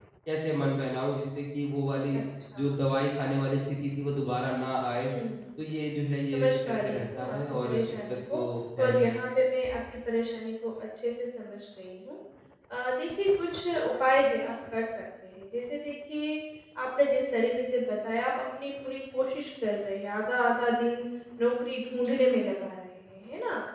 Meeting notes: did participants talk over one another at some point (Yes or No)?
Yes